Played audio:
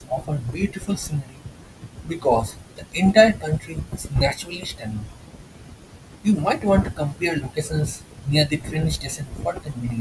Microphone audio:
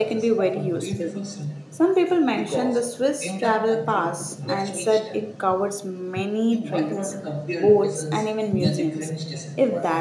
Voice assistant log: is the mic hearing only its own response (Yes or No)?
No